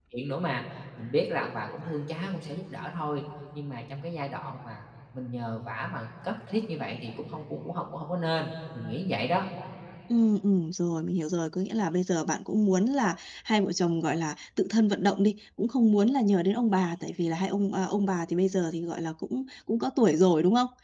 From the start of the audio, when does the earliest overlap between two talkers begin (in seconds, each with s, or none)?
none